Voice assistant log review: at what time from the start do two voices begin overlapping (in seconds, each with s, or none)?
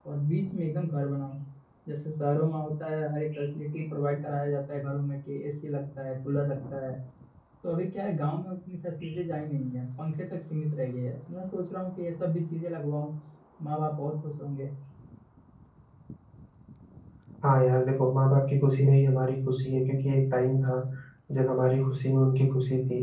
none